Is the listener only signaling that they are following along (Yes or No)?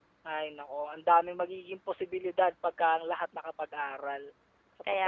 No